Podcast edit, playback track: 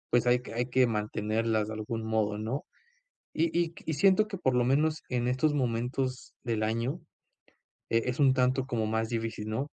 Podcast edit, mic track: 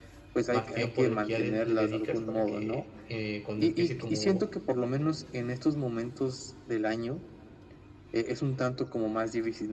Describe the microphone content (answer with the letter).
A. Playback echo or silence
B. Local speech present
B